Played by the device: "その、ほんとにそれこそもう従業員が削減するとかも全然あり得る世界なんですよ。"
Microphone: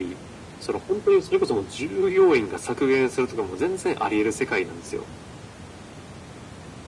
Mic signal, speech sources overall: echo only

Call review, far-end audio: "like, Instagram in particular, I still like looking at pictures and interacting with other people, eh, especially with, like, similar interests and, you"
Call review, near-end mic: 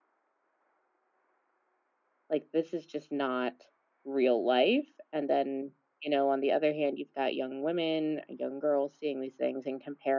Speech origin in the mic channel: user only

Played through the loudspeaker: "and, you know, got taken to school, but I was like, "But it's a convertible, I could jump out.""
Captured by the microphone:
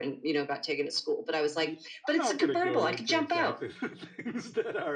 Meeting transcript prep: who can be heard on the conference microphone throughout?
both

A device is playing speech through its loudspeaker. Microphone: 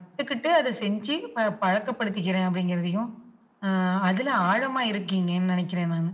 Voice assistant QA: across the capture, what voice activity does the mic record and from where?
echo only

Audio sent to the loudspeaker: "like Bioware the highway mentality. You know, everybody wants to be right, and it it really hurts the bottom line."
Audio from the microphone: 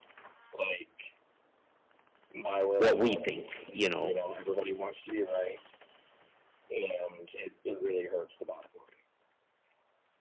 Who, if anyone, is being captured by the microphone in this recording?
both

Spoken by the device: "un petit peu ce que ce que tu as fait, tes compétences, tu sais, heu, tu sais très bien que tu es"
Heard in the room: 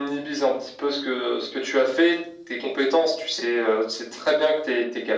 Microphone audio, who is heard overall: echo only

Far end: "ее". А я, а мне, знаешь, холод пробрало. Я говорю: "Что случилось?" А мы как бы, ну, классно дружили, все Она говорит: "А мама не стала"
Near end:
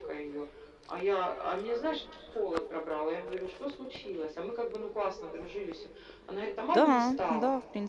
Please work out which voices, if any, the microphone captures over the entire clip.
both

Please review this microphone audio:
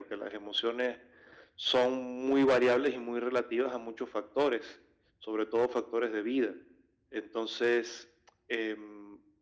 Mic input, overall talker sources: echo only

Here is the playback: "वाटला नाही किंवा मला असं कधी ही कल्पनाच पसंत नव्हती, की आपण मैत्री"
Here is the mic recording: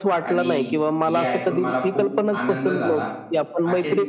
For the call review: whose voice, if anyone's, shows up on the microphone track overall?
both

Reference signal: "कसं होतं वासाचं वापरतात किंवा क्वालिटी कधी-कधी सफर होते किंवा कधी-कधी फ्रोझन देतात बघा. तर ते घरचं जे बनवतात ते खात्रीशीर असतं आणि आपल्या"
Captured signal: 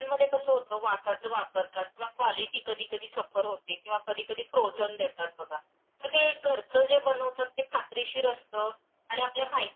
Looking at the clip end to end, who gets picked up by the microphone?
echo only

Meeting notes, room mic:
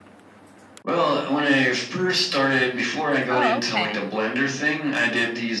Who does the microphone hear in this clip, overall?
both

